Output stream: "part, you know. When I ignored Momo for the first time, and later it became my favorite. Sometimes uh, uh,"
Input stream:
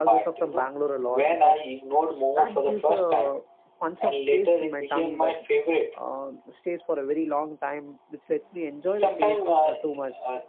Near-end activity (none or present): present